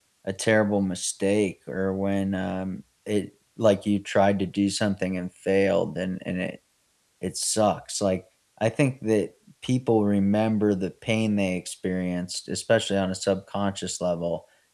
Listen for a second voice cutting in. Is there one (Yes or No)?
No